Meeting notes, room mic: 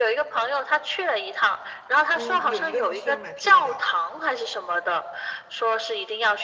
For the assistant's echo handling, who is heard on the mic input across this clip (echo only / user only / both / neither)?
both